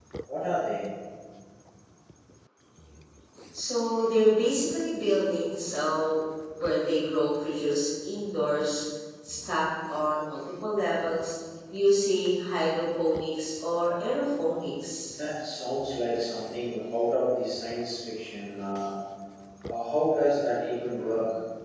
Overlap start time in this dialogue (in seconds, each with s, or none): none